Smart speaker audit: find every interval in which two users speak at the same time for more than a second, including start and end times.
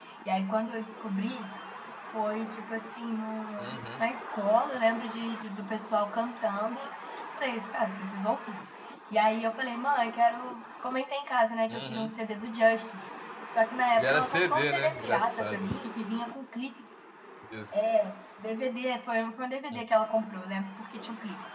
14.0-15.7

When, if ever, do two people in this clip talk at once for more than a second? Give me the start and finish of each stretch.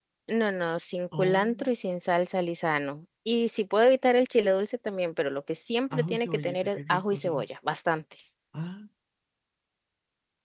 5.9-7.5

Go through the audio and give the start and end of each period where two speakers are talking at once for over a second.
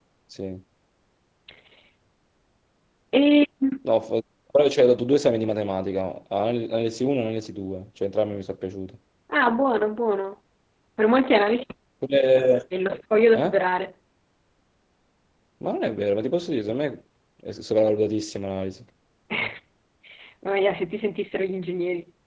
none

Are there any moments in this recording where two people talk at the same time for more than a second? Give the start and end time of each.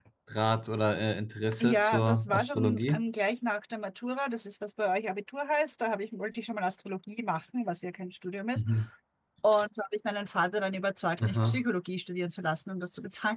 1.6-3.0

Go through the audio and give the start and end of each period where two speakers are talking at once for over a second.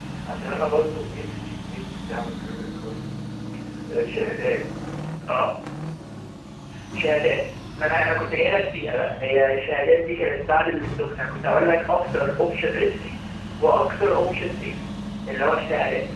none

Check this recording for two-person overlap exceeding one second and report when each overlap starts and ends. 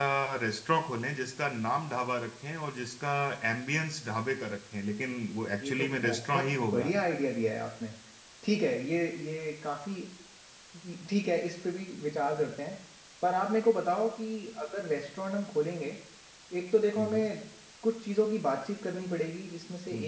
5.6-6.9

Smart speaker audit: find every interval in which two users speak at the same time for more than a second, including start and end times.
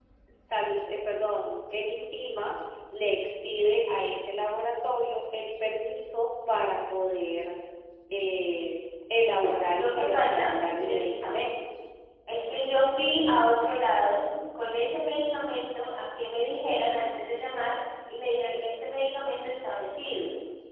9.4-11.4

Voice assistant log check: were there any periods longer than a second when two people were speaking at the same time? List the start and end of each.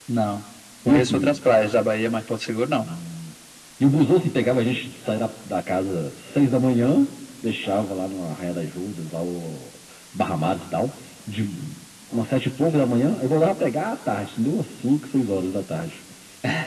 none

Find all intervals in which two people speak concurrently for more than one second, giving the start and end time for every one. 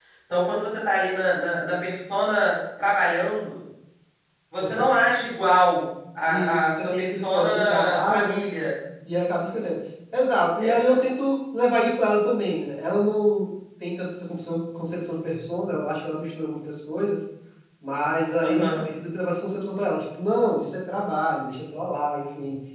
6.3-8.4

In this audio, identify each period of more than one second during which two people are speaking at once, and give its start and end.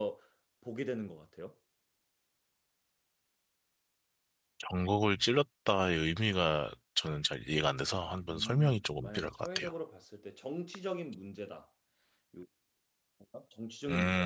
8.3-9.7

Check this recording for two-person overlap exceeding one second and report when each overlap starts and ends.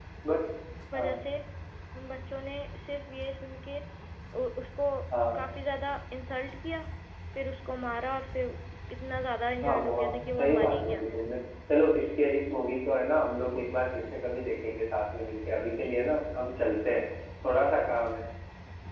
9.6-11.3

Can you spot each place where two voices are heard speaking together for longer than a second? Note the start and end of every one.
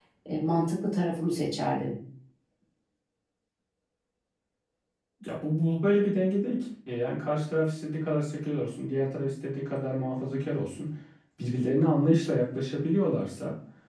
none

